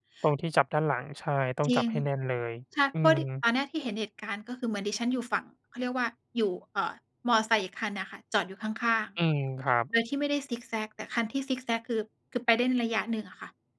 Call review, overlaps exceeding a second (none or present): none